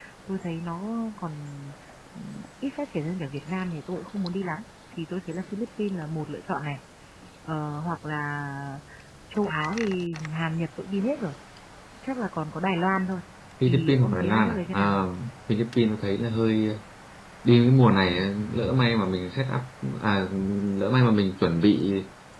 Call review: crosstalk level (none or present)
present